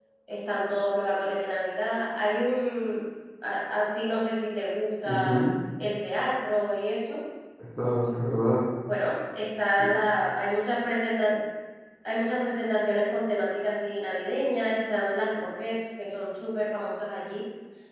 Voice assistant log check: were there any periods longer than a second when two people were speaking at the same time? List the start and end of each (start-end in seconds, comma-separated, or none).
none